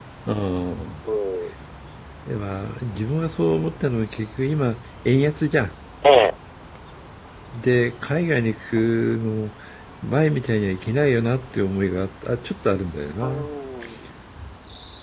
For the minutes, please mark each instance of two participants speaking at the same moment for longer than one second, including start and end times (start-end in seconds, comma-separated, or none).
none